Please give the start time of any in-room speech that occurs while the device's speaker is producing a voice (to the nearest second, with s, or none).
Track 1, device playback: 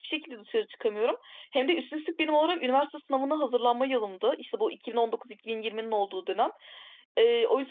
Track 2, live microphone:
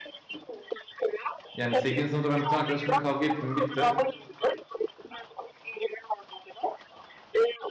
2 s